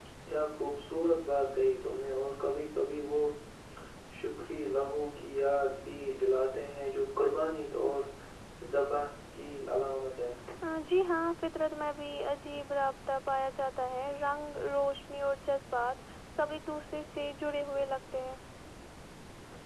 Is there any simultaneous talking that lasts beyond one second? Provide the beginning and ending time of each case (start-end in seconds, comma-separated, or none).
none